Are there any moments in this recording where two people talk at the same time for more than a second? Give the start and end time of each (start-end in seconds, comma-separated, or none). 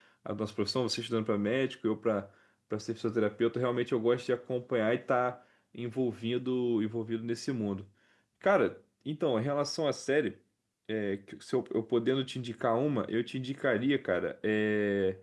none